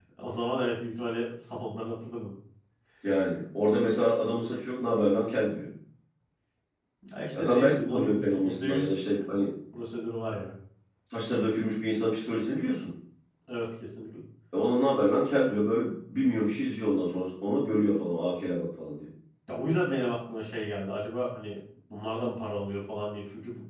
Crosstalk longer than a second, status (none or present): present